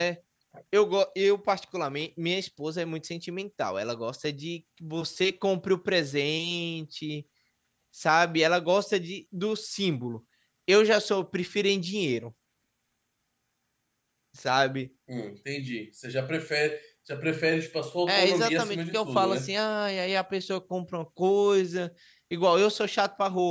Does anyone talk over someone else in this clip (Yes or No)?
Yes